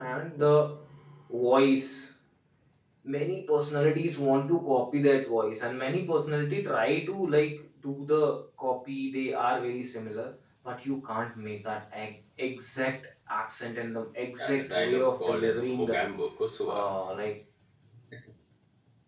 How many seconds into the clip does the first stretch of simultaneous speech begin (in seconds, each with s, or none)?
14.4 s